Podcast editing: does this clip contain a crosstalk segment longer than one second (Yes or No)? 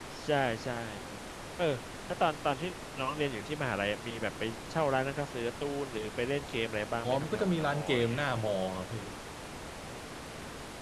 Yes